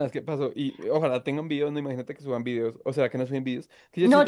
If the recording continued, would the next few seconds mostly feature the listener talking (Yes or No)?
Yes